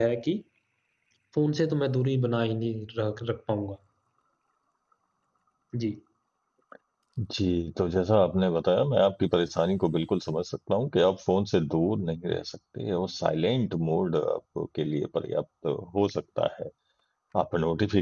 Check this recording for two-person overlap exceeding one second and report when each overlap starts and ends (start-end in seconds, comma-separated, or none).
none